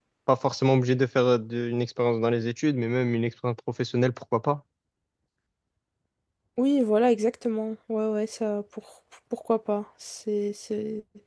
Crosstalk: none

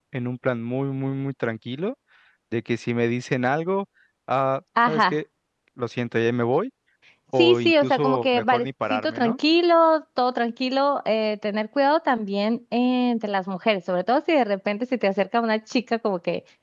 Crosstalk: present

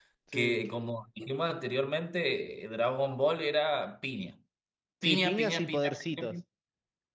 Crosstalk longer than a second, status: present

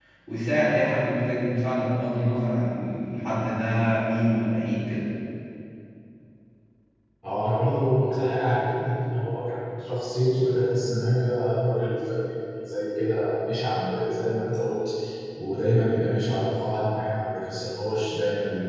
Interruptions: none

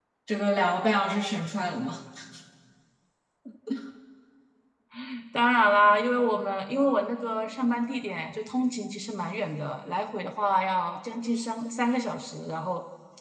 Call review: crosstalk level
none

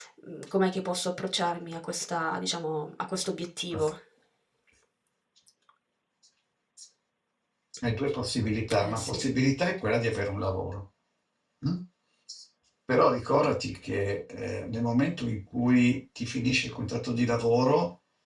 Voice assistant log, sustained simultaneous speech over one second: none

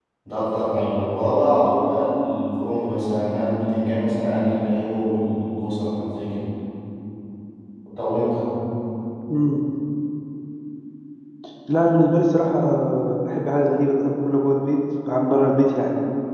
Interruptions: none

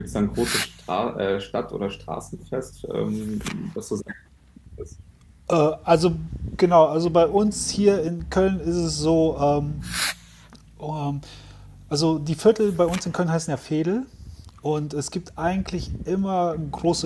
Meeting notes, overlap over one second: none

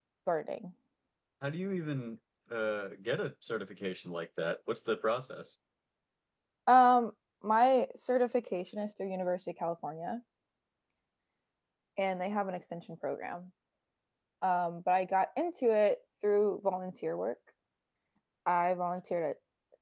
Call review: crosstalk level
none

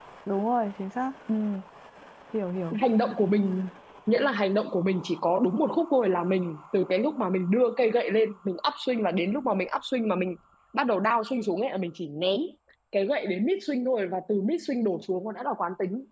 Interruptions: none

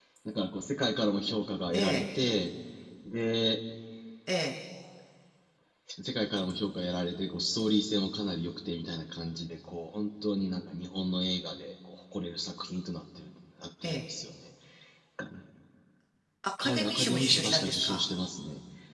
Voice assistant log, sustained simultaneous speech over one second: present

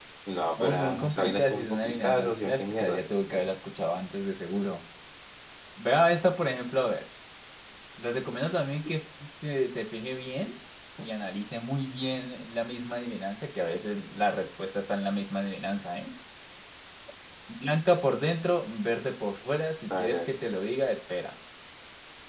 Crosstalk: present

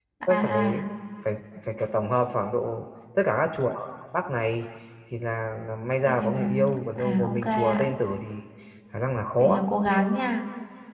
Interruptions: present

